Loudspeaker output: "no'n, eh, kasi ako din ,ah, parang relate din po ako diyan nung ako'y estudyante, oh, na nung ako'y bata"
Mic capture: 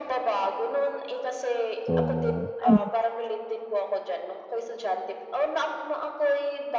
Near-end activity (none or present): present